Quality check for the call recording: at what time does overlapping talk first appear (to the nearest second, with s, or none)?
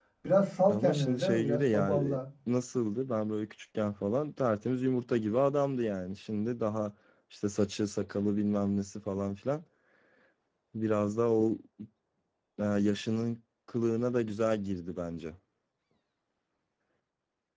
1 s